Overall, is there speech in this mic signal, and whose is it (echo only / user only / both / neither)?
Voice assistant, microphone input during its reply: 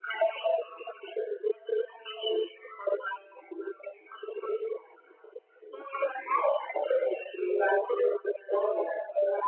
echo only